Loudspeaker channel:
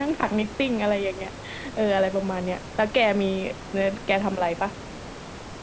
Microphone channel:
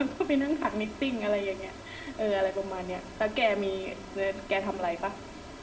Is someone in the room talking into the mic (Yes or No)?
No